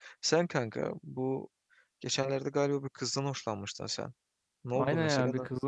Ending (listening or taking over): taking over